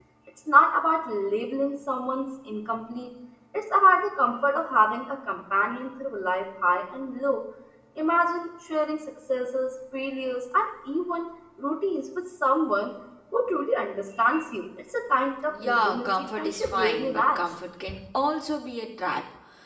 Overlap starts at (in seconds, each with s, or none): 15.5 s